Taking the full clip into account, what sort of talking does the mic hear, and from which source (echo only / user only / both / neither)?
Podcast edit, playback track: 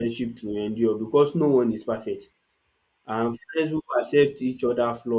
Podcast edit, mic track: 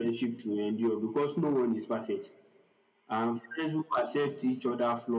echo only